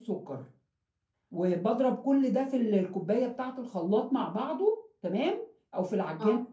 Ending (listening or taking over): listening